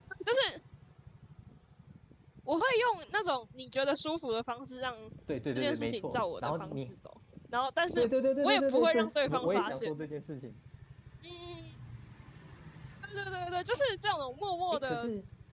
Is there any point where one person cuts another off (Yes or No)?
Yes